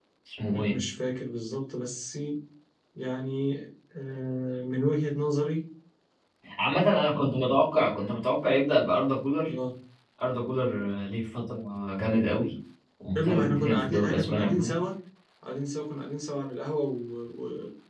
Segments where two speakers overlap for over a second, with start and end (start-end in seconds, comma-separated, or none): 13.2-14.8